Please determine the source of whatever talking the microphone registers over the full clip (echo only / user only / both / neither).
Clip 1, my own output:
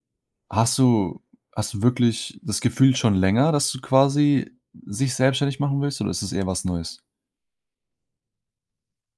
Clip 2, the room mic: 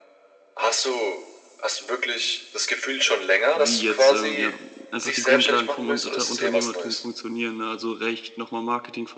both